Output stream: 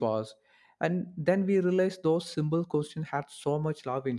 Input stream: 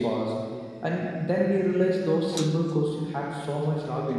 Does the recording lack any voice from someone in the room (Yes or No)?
Yes